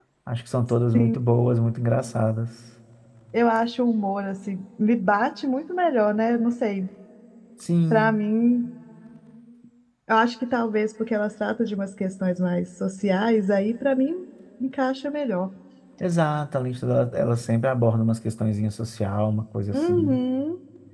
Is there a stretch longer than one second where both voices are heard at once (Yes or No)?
No